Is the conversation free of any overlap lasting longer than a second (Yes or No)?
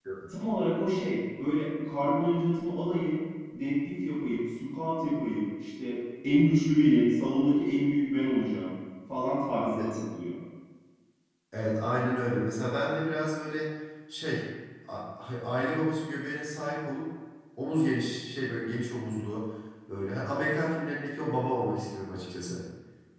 Yes